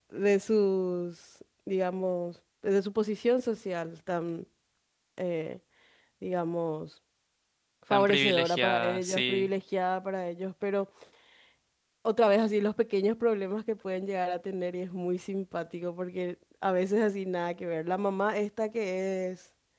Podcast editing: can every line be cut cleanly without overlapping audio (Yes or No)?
No